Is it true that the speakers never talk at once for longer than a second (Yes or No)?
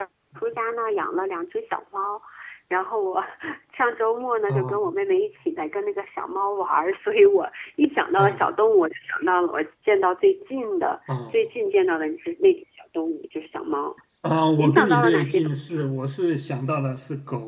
No